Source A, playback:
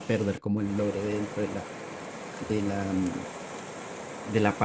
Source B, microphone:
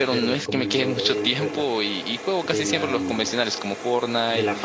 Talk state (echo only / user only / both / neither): both